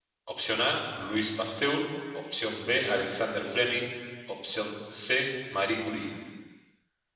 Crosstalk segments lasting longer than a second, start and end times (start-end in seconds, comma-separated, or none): none